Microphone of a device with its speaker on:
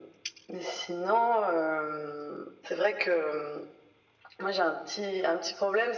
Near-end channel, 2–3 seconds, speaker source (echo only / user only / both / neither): echo only